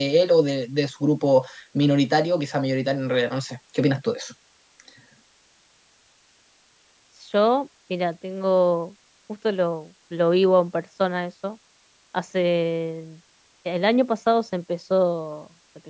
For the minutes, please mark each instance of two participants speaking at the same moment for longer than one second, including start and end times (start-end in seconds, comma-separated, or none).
none